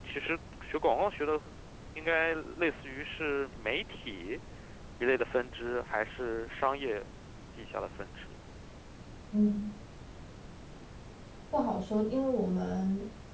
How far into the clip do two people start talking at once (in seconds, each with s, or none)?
none